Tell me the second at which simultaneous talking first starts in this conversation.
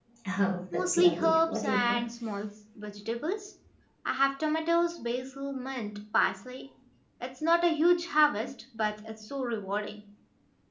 0.7 s

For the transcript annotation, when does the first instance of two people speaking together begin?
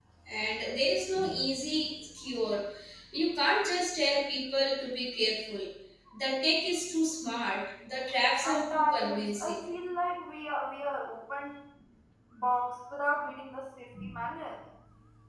8.3 s

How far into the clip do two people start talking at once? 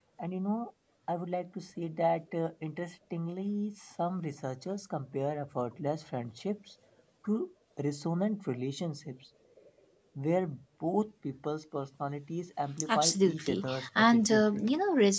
12.8 s

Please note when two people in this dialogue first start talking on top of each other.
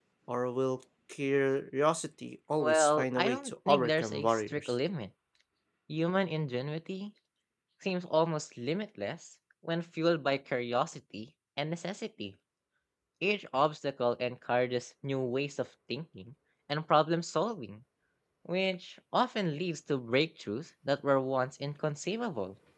2.6 s

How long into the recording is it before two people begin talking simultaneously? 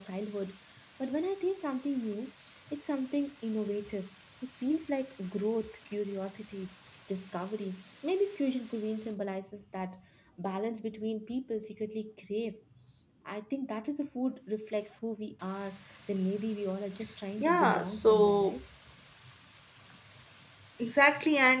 17.4 s

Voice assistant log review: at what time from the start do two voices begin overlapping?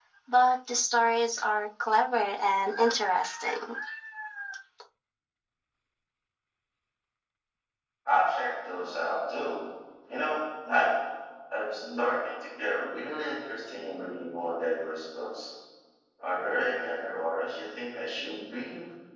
none

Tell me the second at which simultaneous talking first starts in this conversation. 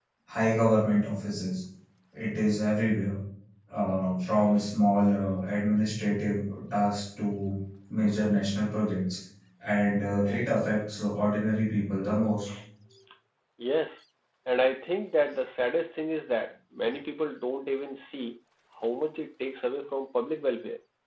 none

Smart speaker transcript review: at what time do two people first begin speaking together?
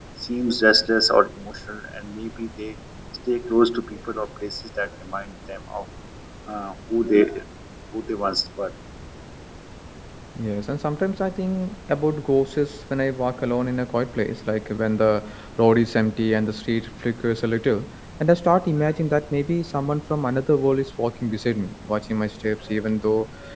none

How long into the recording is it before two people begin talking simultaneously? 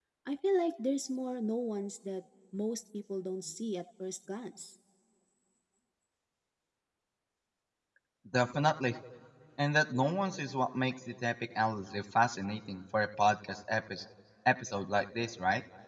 none

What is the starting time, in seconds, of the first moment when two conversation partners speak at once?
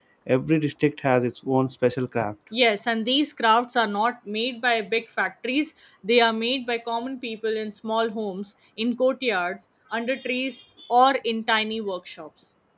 none

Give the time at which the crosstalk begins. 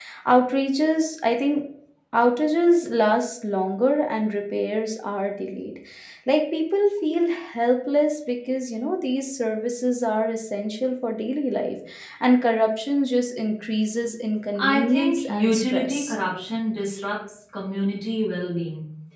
14.6 s

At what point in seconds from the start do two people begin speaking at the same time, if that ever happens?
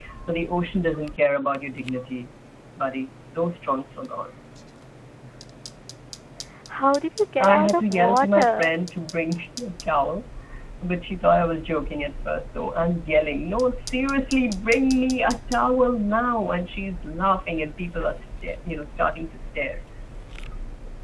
7.4 s

